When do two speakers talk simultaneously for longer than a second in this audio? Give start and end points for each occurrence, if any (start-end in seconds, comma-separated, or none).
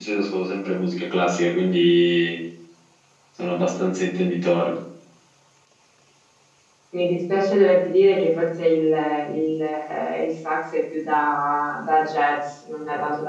none